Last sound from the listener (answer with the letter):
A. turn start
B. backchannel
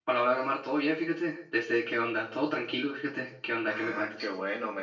A